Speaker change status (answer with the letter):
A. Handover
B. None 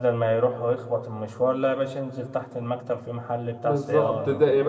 A